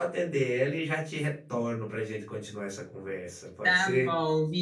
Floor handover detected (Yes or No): Yes